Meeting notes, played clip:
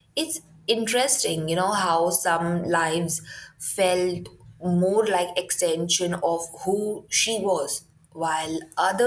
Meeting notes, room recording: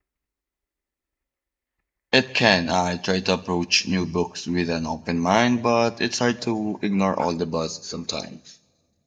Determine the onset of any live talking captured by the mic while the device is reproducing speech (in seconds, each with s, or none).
2.1 s